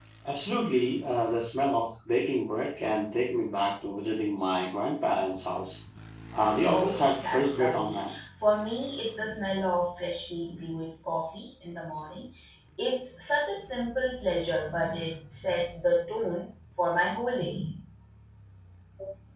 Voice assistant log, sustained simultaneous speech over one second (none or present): present